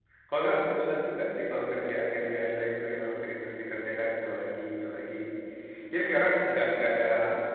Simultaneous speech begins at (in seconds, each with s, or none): none